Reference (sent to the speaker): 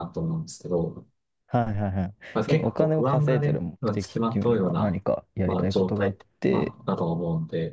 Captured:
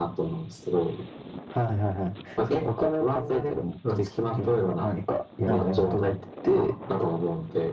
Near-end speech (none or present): present